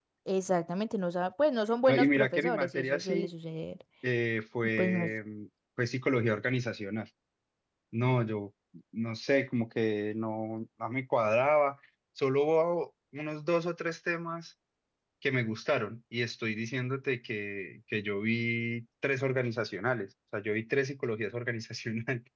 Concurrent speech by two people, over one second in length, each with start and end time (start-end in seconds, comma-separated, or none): 1.9-3.3